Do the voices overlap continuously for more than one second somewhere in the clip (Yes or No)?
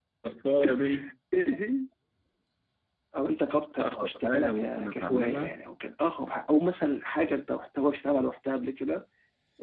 Yes